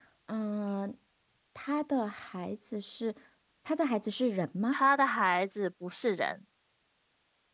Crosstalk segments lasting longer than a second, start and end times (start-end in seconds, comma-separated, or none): none